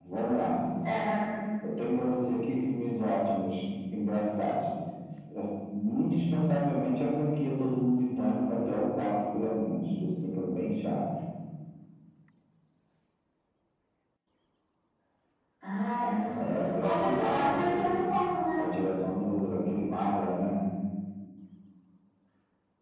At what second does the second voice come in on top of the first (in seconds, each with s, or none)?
16.4 s